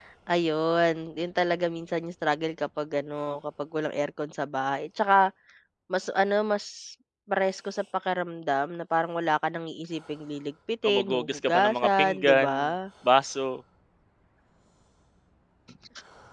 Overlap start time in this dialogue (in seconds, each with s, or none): 10.8 s